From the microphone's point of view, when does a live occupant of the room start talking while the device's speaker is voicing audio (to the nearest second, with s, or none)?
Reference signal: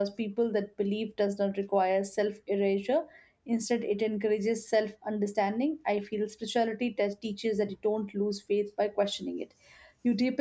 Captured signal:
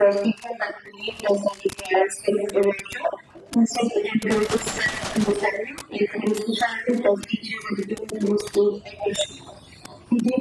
none